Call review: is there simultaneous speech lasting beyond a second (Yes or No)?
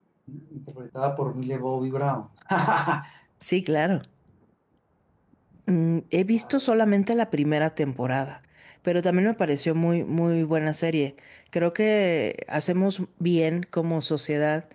No